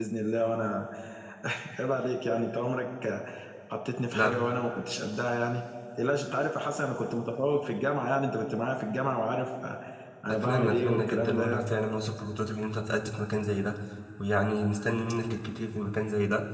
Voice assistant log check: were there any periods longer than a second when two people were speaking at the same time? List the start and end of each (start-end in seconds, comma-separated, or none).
10.3-11.7